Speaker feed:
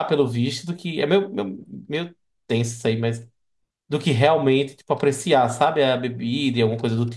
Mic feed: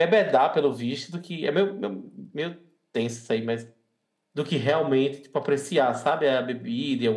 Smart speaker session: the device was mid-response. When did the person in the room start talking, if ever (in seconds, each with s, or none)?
none